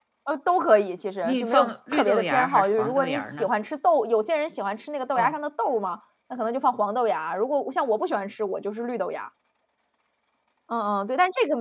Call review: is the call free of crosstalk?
No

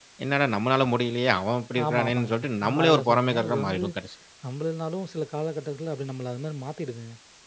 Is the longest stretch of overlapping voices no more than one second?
No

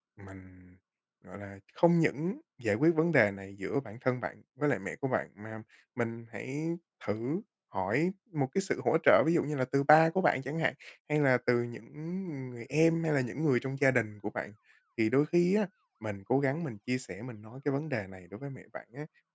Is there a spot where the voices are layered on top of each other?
No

